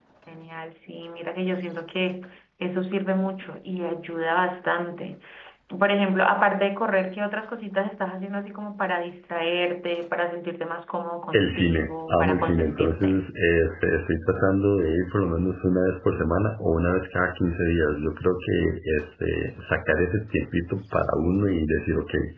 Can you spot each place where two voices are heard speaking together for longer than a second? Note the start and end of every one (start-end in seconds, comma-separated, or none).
11.3-13.2